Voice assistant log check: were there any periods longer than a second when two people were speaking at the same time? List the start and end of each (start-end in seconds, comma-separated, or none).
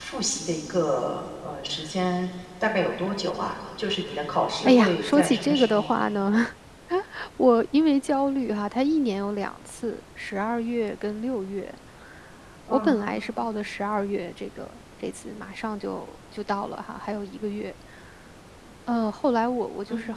4.7-6.0